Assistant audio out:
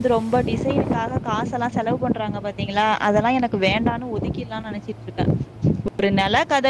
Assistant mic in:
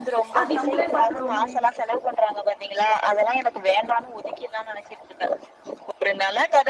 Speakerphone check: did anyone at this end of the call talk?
Yes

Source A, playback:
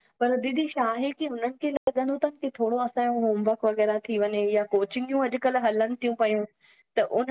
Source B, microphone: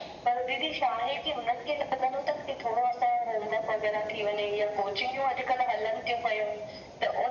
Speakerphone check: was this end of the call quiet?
Yes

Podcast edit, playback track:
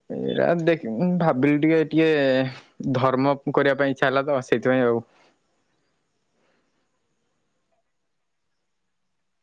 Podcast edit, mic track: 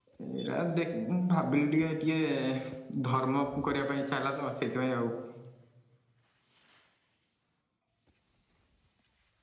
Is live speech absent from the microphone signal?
Yes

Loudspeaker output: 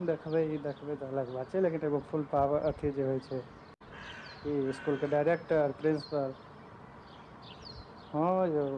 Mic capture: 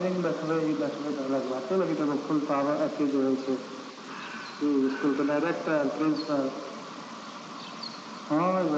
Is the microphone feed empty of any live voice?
Yes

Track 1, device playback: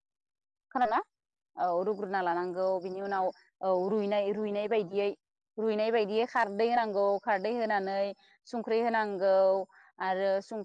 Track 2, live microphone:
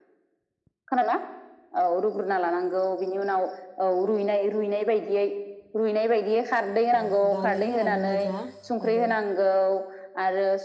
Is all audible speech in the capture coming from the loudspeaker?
No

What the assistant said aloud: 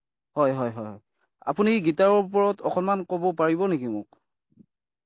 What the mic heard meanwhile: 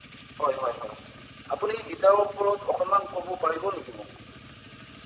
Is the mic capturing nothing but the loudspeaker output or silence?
Yes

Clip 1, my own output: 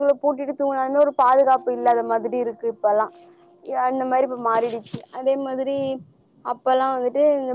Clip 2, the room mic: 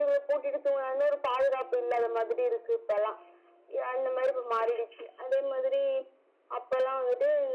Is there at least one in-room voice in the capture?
No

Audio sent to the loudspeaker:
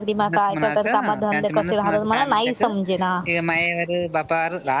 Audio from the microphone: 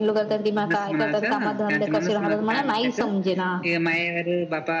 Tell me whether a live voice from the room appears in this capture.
No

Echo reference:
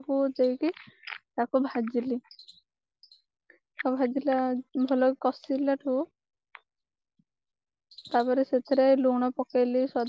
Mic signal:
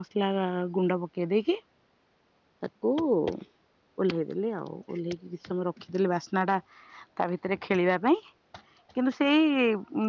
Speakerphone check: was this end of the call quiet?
No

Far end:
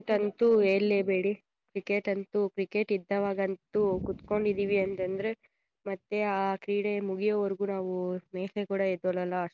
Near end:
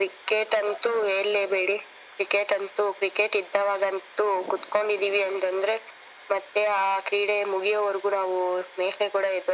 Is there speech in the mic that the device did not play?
No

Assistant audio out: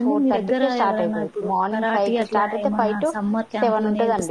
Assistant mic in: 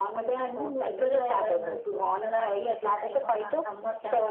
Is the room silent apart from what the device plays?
Yes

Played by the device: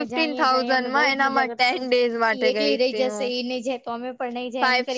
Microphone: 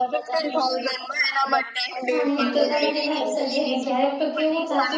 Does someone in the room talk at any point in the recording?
Yes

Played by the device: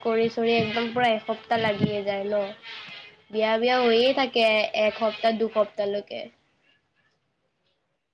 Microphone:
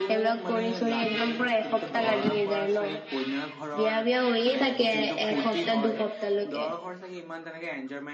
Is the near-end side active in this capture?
Yes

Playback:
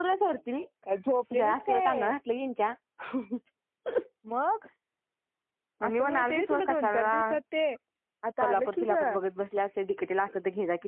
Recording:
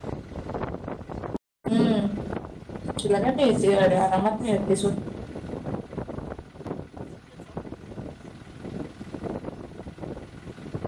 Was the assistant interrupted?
Yes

